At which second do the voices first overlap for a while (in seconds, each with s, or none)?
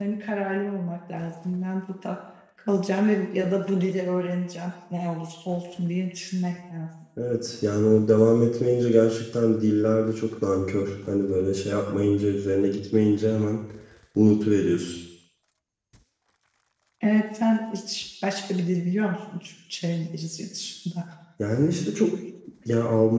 none